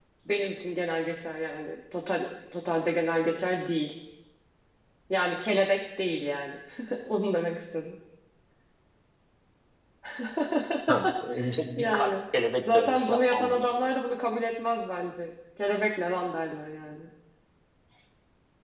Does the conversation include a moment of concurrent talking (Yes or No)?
Yes